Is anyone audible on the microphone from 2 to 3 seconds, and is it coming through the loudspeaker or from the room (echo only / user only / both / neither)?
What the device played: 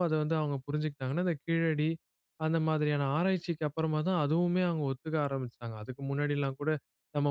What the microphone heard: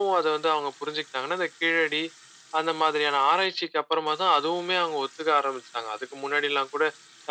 echo only